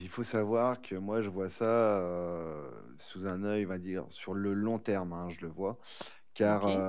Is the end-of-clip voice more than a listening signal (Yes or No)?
No